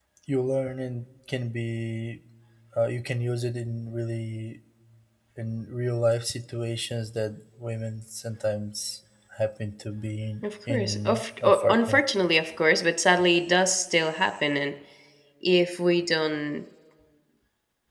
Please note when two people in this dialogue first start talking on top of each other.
10.7 s

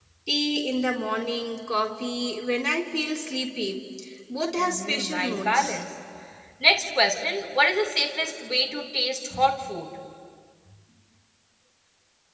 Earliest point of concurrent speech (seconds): 4.6 s

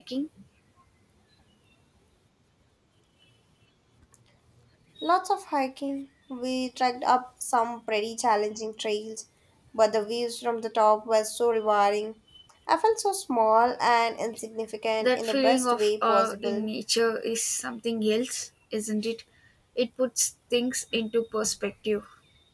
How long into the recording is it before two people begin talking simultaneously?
15.0 s

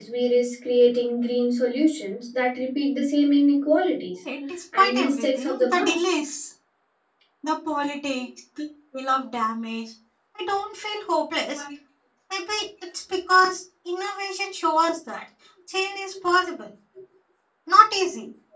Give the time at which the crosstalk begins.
4.8 s

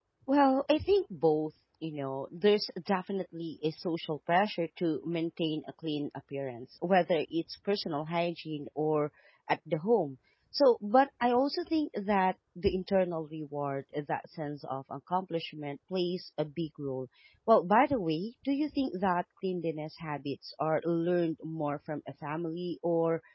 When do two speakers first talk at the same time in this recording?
none

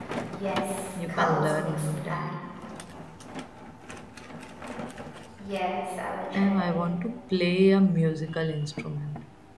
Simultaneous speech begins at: 0.9 s

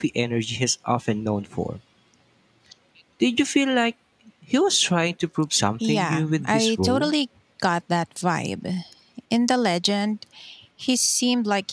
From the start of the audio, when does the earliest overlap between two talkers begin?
5.8 s

